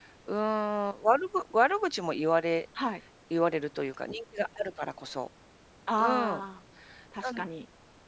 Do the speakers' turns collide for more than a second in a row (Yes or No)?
No